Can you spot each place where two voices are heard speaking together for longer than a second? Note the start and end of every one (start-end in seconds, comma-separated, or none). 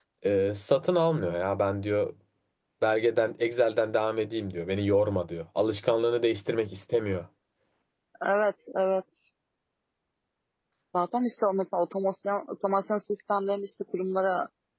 none